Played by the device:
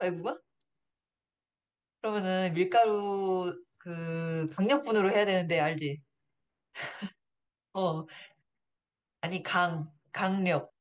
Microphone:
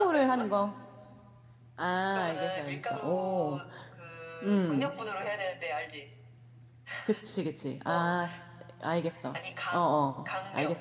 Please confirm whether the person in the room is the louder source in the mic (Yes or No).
Yes